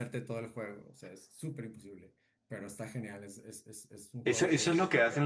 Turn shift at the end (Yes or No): Yes